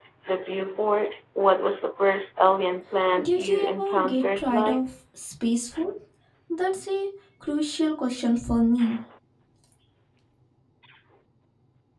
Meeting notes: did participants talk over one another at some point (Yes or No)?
Yes